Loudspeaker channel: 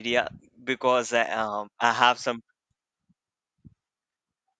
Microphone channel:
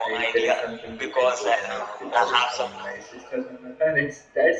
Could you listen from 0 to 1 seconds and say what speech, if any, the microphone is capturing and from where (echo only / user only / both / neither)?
both